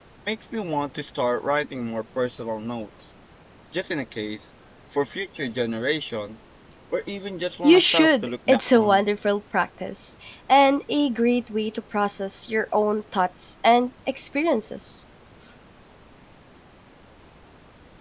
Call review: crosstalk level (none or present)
present